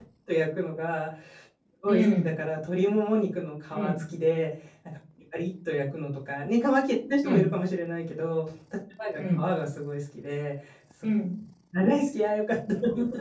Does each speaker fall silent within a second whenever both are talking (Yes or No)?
Yes